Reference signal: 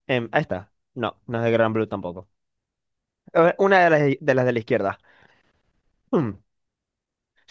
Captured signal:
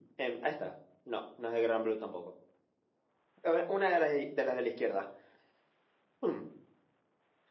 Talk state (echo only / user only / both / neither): echo only